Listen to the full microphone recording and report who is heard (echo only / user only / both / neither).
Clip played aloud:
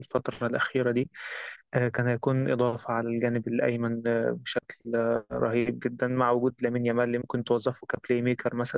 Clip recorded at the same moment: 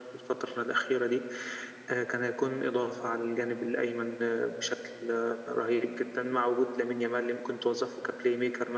echo only